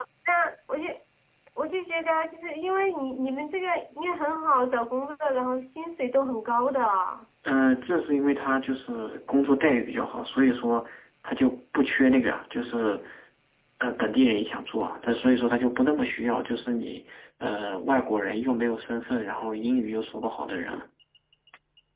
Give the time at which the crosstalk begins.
none

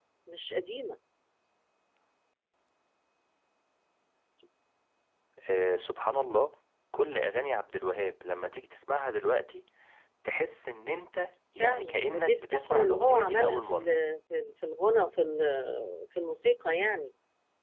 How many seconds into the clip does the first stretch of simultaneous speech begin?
11.6 s

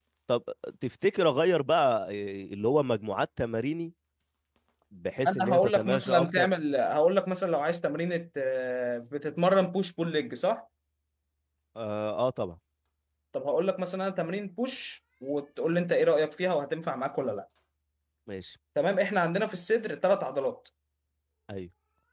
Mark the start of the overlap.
5.2 s

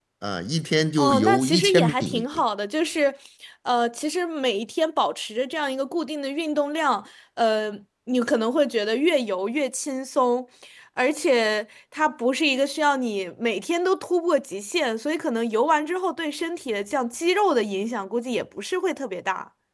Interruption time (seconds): 1.0 s

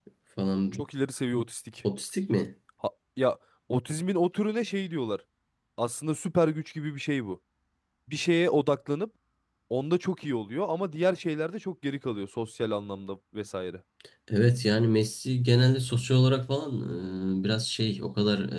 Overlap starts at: none

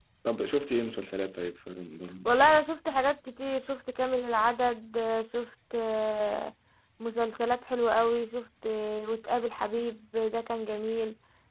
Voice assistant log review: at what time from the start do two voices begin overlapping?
none

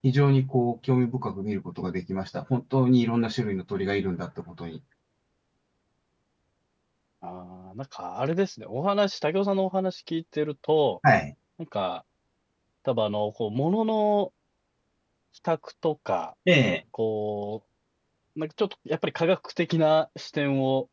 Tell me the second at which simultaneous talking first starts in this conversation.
none

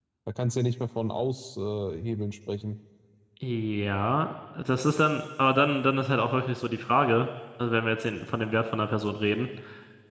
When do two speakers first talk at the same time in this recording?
none

